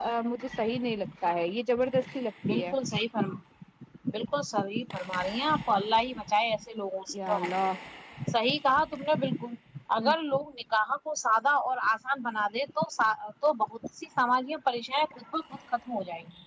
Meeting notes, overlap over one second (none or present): none